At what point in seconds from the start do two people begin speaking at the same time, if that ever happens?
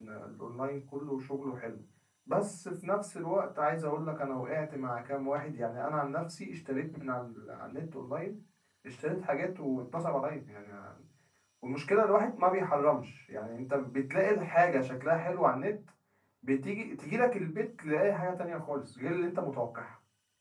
none

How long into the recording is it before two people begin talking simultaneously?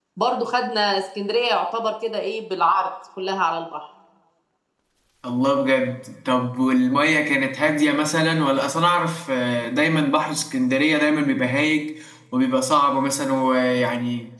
none

